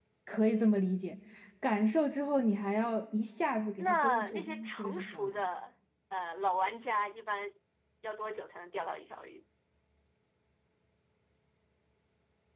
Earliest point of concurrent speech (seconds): 4 s

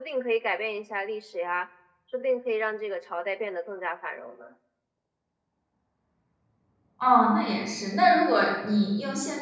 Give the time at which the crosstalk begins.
none

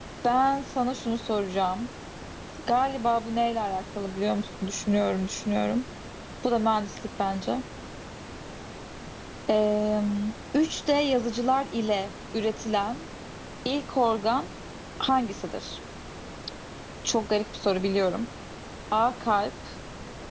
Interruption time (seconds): none

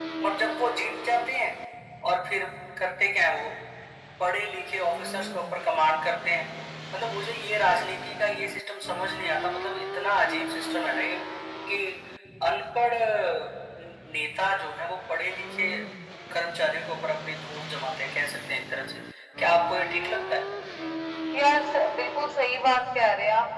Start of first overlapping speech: none

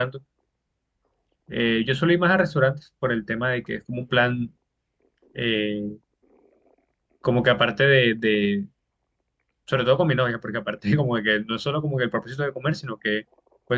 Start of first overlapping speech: none

